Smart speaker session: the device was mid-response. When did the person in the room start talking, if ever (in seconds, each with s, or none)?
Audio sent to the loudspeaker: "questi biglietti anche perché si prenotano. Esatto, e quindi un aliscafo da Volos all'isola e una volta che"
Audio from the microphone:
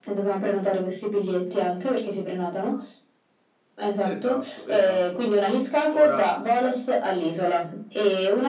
4.0 s